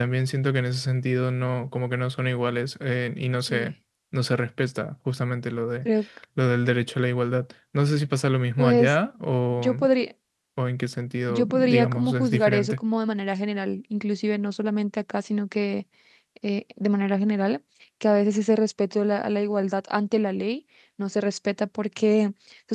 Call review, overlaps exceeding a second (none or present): present